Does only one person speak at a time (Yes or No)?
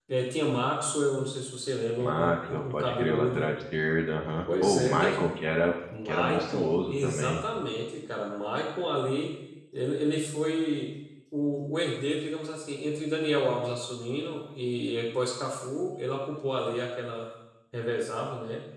No